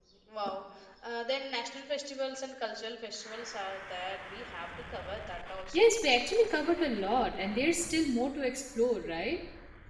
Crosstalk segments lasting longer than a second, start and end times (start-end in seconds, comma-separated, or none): none